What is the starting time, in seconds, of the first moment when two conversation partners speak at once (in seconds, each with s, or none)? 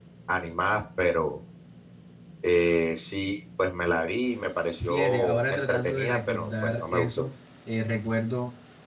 4.8 s